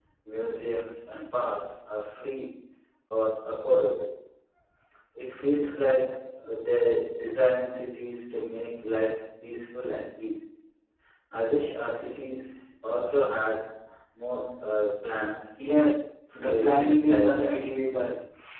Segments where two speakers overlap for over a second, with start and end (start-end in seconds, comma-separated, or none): 16.5-17.7